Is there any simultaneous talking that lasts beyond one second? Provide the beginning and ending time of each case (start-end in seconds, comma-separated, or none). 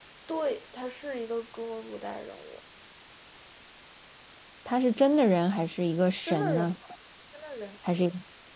none